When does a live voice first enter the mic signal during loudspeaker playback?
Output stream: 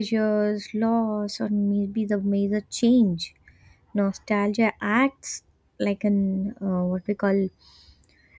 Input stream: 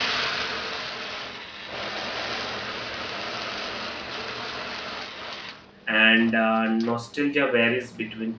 5.9 s

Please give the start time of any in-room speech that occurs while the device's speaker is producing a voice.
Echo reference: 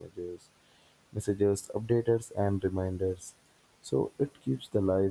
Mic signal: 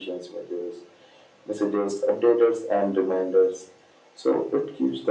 none

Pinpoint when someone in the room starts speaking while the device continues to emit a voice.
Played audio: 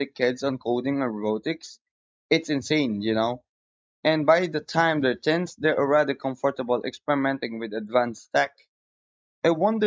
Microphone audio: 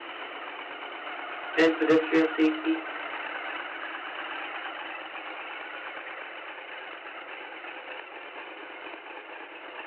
1.6 s

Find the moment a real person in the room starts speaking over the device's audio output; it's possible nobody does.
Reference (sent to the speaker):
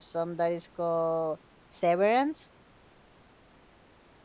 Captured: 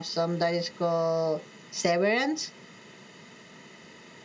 none

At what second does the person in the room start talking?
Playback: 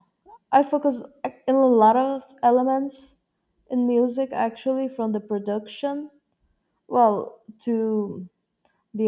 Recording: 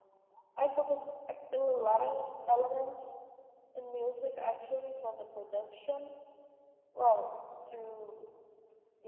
none

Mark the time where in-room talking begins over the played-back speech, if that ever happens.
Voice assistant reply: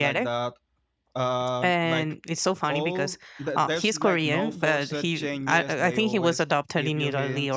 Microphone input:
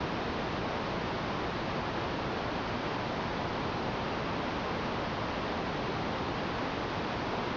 none

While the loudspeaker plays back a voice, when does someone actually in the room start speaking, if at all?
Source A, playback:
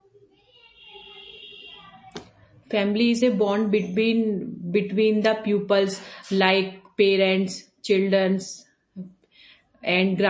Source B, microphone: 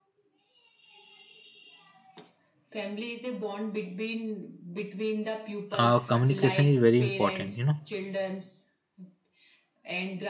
5.8 s

